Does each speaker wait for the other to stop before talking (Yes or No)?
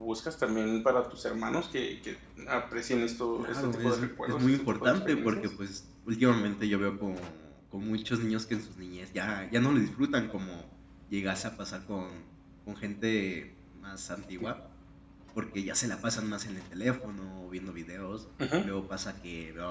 No